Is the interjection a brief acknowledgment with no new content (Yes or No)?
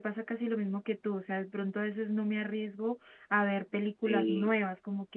Yes